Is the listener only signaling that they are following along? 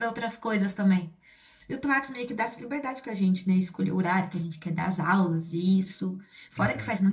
Yes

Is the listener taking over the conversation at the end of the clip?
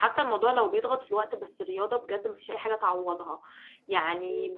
No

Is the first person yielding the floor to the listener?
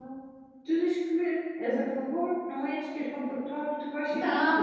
Yes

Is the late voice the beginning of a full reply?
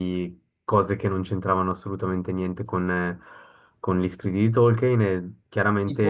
No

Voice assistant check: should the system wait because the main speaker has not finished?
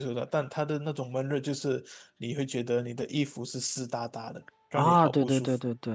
No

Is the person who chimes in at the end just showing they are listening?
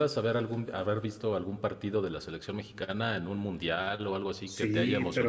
No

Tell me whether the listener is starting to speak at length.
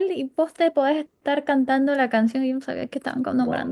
Yes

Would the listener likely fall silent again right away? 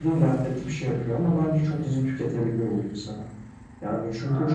Yes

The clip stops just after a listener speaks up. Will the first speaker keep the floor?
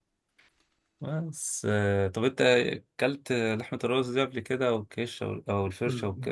No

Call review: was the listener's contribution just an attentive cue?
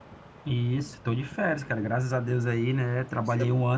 Yes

